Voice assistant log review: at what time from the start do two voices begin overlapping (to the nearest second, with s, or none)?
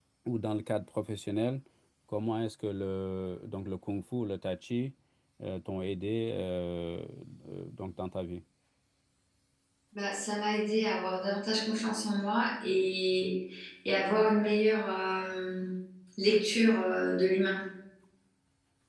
none